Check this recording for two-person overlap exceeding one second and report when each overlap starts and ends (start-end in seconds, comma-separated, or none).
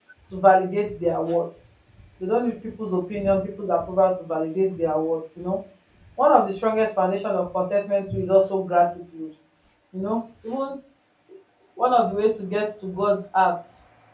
none